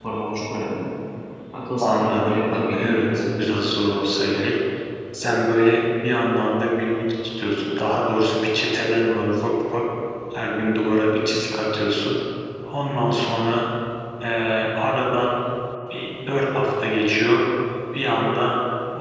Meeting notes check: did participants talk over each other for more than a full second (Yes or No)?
Yes